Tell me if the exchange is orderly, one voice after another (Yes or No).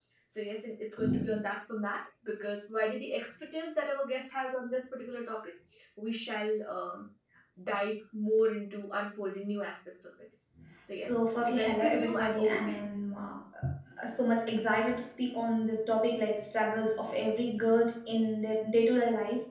No